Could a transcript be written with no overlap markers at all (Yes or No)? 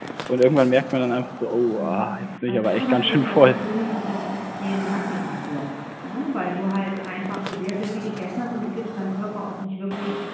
No